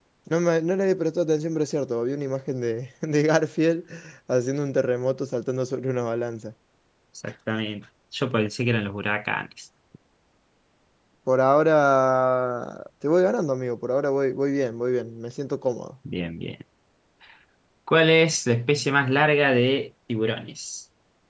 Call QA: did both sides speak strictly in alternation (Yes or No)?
Yes